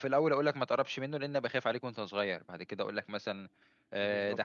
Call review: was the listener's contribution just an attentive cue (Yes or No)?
Yes